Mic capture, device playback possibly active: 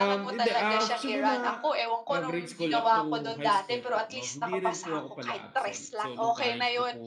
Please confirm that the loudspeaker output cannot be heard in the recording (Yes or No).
No